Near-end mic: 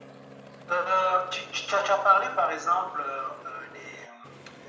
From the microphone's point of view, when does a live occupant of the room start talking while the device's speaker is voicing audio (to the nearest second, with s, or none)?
none